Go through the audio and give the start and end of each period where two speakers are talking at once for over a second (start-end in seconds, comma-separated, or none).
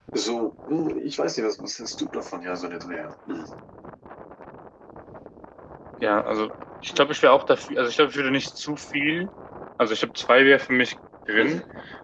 none